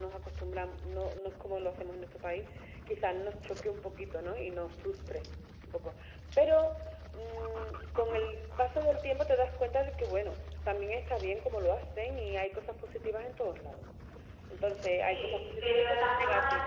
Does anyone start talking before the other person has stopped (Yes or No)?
Yes